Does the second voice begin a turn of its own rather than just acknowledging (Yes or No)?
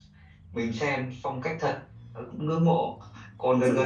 No